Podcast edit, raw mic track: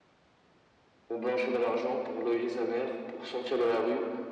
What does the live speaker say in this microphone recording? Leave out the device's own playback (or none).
none